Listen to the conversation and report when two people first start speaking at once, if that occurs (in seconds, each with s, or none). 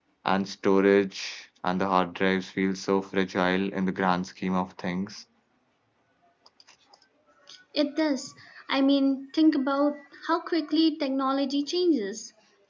none